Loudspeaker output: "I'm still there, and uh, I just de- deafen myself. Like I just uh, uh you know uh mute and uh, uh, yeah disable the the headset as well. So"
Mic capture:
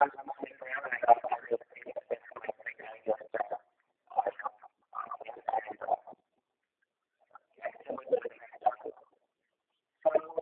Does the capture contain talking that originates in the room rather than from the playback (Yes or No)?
No